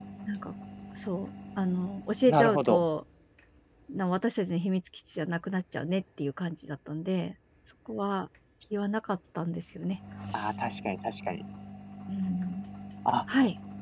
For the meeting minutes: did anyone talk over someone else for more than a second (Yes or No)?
No